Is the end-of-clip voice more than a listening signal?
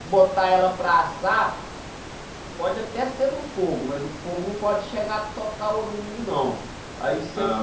No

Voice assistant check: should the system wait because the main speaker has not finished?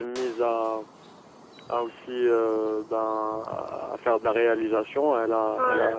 Yes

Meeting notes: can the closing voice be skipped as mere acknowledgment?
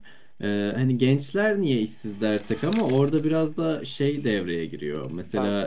Yes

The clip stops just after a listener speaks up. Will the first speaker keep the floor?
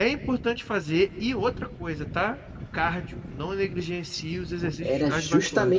No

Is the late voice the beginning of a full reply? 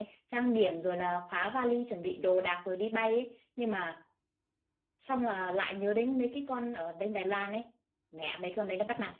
Yes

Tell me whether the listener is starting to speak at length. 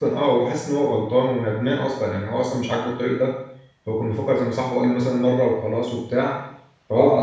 Yes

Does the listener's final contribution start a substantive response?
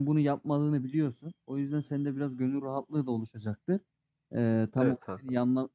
No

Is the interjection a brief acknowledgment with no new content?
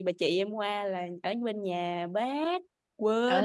No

